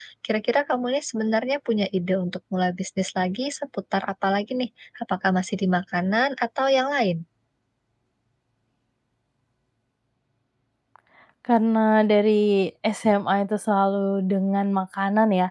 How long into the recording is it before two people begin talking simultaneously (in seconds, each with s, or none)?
none